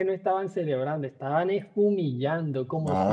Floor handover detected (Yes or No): No